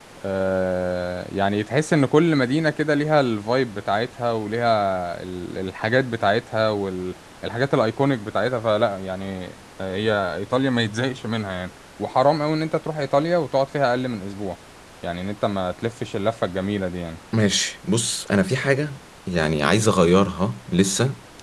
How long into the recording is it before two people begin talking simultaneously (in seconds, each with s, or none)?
none